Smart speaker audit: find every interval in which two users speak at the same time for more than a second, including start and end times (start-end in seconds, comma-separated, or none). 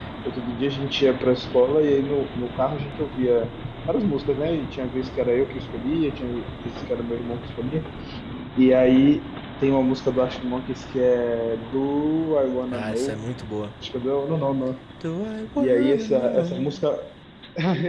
15.6-16.8